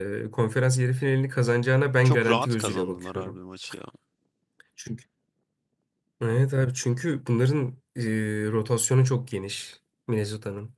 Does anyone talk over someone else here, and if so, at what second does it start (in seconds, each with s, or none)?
2.0 s